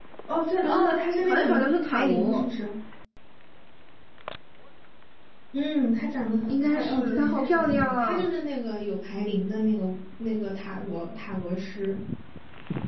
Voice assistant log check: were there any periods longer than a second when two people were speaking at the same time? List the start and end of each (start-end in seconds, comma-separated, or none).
1.2-2.4, 6.5-8.3